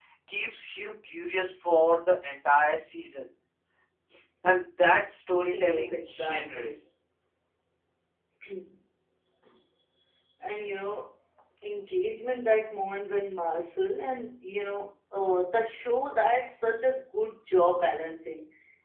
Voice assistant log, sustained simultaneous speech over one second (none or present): present